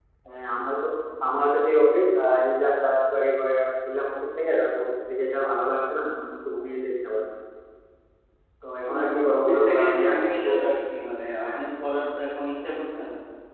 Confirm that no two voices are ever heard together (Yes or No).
No